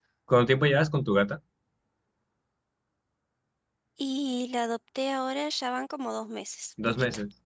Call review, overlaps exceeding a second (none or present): none